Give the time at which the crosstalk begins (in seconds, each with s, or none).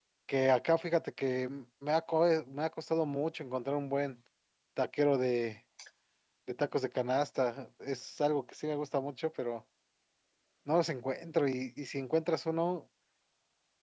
none